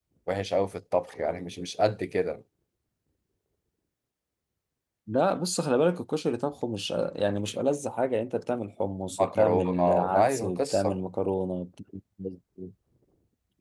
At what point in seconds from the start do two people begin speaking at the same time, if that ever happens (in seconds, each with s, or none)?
9.1 s